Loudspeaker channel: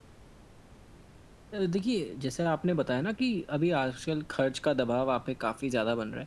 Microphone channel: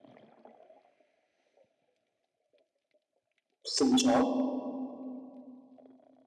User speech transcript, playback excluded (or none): समझा।